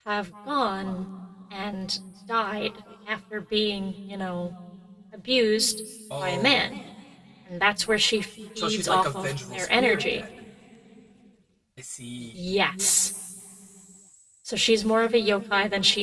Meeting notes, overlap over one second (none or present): present